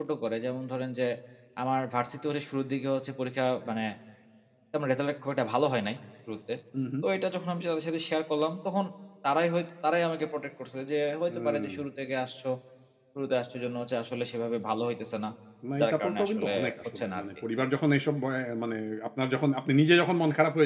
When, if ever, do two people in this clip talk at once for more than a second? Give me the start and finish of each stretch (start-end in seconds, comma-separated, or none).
15.8-17.2